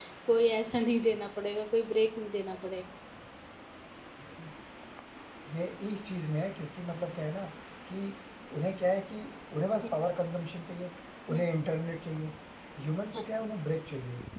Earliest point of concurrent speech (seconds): none

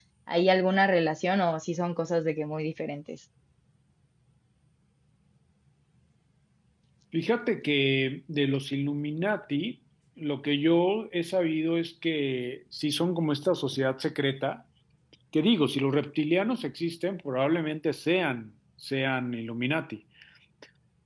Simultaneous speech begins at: none

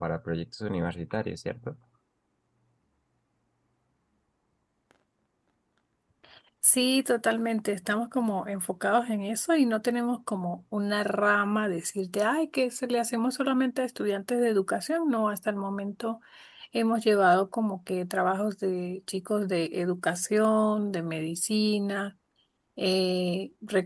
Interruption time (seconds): none

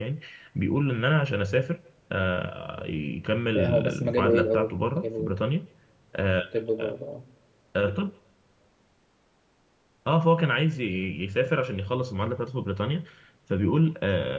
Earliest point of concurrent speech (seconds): 4 s

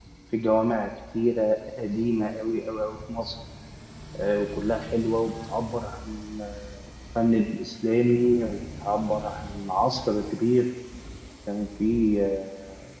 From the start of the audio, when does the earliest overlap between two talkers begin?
none

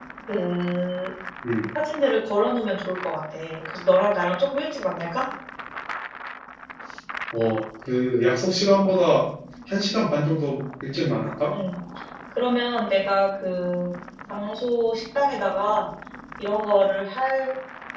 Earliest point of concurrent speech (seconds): none

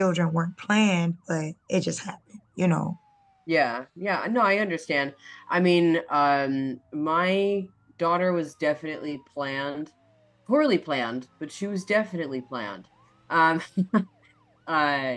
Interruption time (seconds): none

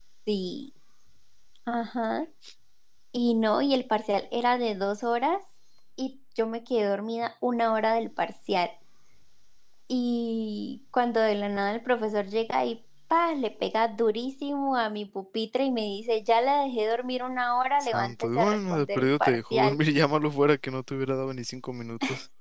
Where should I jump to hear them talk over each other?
18 s

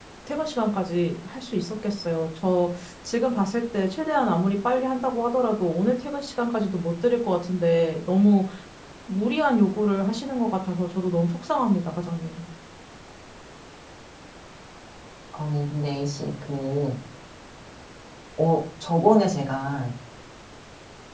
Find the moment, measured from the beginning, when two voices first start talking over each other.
none

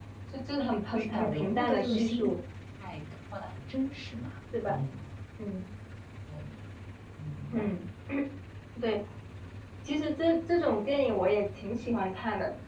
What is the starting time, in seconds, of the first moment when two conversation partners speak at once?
1 s

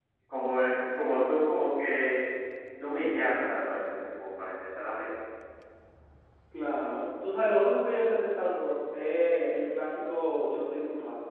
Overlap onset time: none

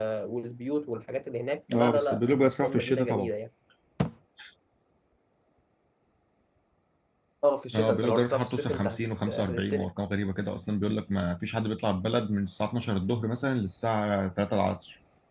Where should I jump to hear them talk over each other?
2 s

